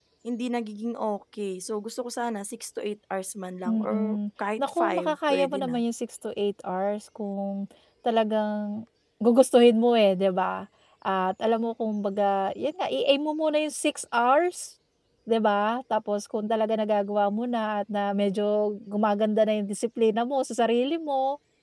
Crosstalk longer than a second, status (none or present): present